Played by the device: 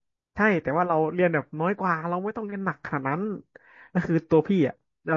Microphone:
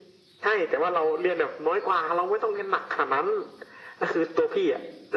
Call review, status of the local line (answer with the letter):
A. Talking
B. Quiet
B